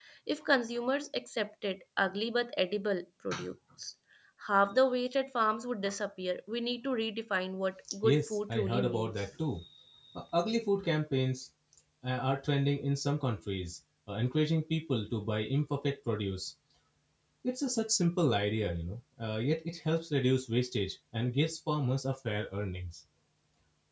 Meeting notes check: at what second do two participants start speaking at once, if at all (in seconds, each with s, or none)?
8.0 s